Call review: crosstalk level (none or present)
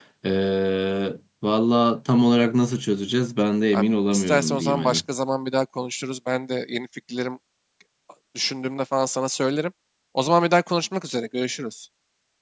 present